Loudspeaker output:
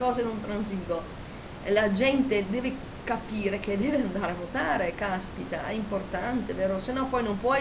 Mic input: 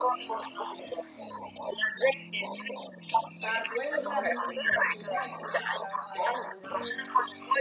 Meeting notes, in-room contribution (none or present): present